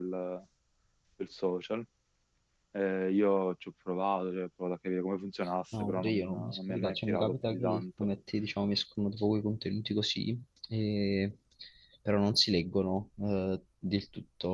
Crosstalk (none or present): present